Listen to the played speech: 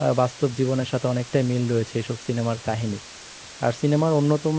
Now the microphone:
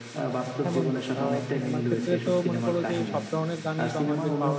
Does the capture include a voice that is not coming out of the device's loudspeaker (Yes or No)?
Yes